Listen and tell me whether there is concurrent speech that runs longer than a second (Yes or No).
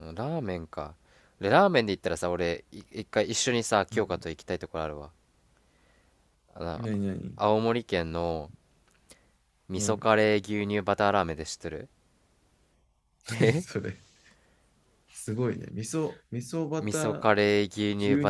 No